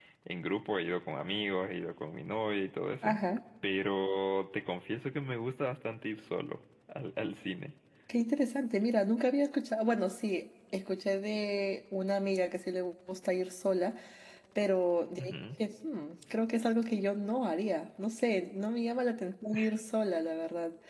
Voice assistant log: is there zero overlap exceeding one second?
Yes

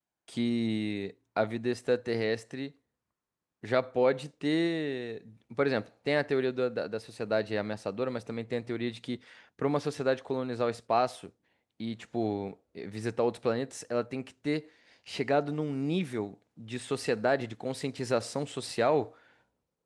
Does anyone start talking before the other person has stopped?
No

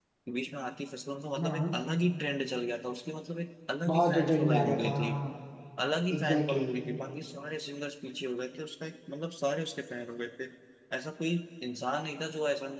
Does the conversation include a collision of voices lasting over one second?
Yes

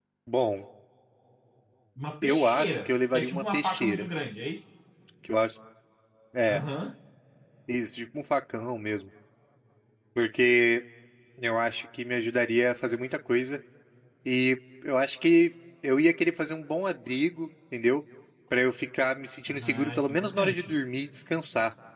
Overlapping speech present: Yes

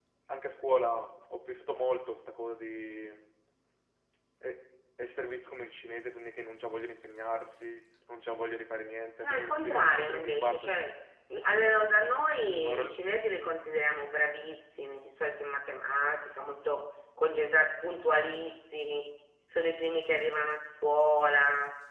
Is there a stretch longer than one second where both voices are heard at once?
Yes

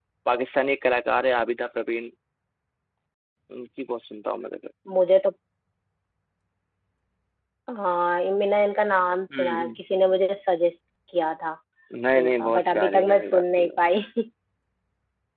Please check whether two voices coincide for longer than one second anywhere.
Yes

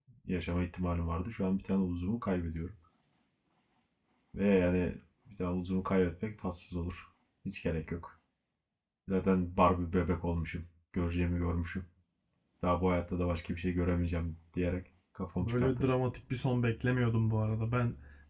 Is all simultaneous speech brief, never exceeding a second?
Yes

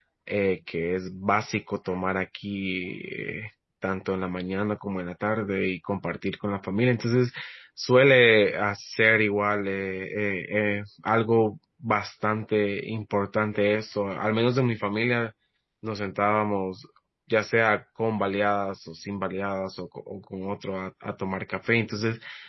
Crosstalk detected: No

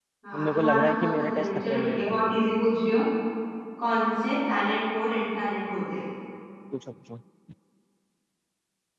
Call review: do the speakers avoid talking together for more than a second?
No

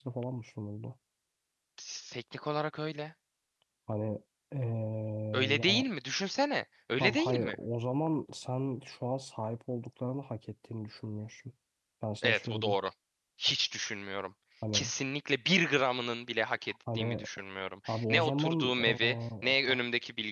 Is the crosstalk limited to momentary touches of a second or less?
No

